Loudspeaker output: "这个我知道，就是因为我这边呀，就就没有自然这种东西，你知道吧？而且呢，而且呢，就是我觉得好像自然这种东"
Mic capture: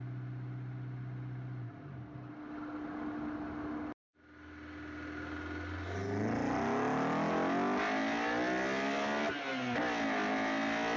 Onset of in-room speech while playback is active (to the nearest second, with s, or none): none